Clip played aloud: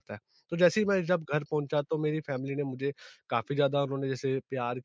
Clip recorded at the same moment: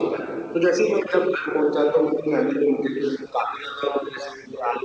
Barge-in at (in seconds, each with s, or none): none